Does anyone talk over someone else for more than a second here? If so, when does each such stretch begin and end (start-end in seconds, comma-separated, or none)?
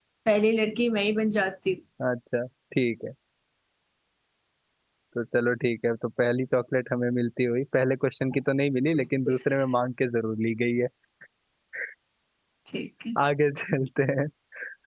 none